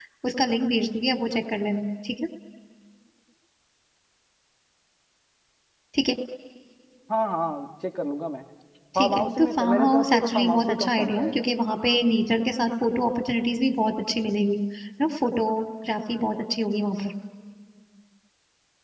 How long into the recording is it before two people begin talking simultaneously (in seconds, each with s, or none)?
8.9 s